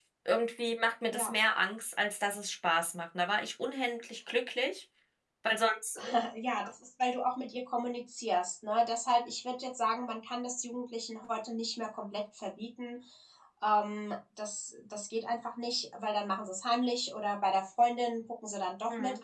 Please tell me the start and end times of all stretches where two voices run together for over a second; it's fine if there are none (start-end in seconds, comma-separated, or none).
none